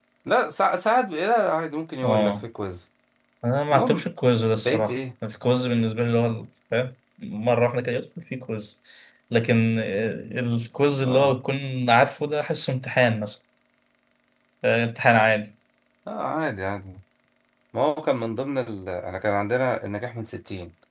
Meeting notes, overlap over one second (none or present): none